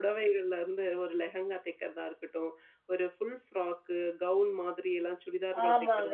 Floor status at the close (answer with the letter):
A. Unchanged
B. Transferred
B